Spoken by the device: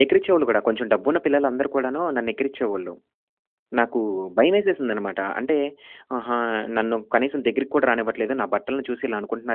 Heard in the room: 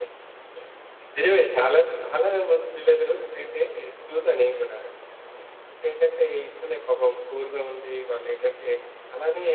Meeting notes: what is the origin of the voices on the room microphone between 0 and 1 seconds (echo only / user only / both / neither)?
neither